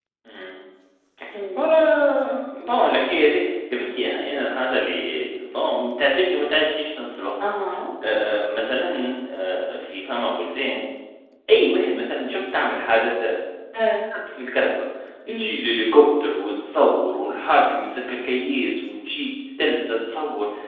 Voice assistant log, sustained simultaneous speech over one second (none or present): none